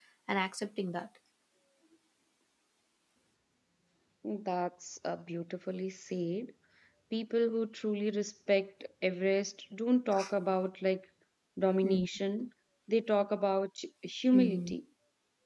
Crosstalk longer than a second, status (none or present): none